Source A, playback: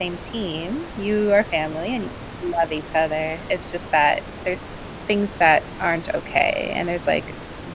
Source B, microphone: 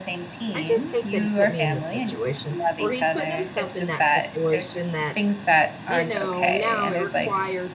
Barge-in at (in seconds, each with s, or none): 0.5 s